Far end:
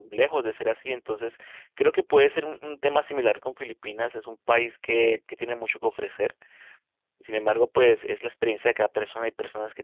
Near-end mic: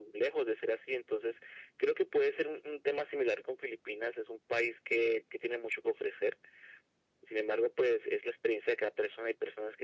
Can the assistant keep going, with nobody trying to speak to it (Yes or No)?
Yes